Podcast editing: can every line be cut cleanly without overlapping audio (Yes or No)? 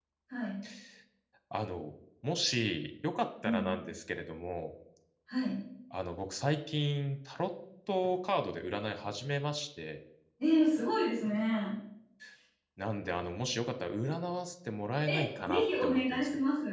No